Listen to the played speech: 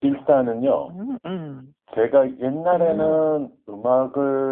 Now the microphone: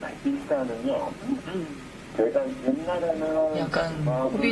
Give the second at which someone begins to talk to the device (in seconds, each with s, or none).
3.5 s